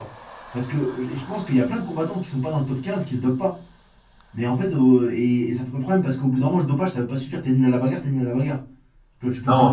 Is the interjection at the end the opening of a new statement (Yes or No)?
Yes